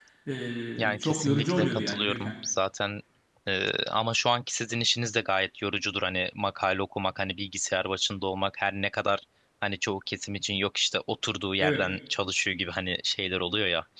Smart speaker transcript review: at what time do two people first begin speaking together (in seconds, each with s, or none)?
0.8 s